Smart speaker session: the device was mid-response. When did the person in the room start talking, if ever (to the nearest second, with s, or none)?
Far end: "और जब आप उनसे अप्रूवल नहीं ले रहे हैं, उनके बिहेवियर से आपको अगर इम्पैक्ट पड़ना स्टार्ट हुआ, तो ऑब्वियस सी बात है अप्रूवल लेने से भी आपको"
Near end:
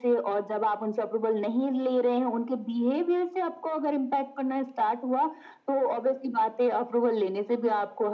none